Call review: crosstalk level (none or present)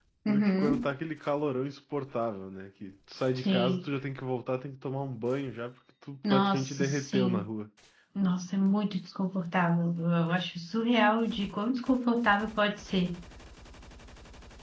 present